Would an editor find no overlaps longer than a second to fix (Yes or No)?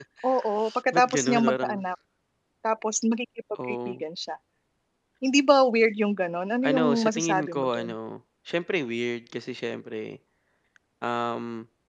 No